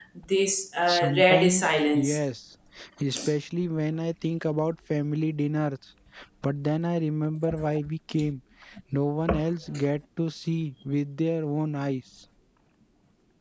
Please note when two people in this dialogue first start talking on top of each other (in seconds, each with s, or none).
0.9 s